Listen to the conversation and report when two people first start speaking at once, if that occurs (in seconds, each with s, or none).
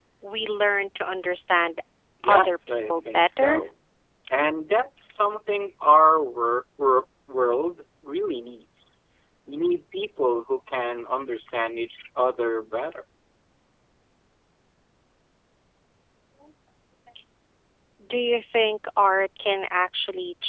2.2 s